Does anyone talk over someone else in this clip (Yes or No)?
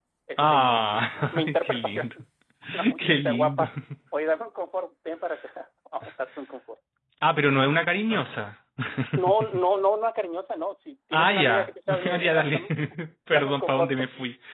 Yes